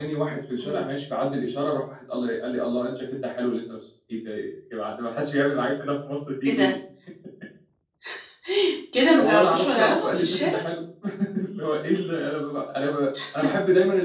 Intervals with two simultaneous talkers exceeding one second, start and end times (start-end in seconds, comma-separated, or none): 9.2-10.7